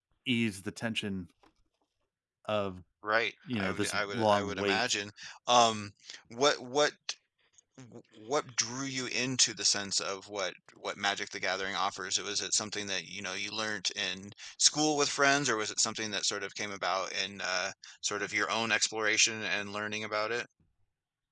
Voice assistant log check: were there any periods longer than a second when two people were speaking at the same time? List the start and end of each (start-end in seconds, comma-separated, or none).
3.5-4.8